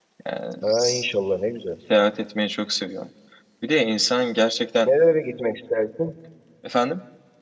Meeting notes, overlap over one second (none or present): none